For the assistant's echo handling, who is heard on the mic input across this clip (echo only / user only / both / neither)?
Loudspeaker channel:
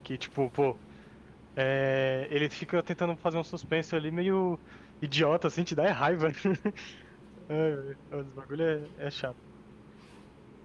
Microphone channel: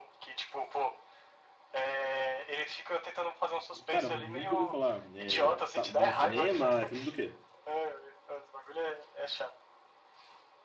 both